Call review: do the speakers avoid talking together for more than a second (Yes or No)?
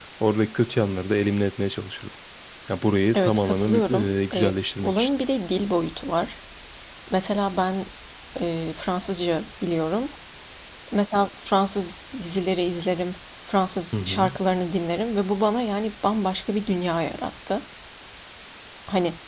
No